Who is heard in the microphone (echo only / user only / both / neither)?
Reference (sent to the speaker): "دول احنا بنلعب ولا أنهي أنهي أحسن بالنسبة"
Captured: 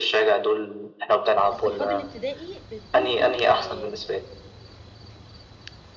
both